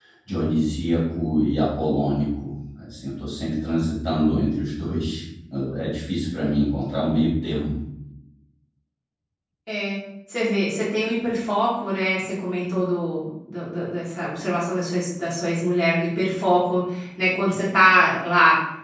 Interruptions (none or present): none